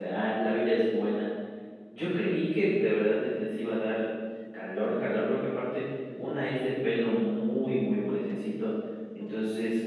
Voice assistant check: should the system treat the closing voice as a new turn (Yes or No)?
No